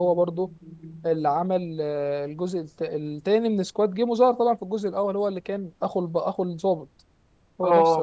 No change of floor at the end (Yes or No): No